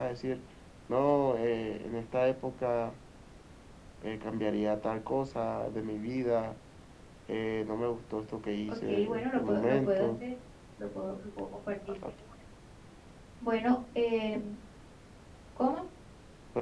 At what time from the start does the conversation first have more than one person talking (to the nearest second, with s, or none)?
9 s